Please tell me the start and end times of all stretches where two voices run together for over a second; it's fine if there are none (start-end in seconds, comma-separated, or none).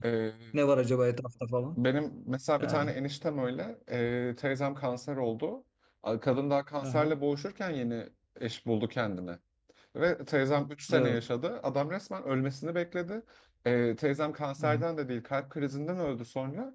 none